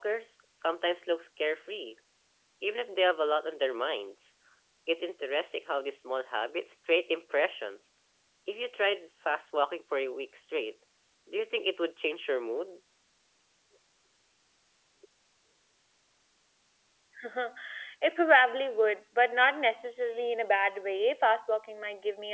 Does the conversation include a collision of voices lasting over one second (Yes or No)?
No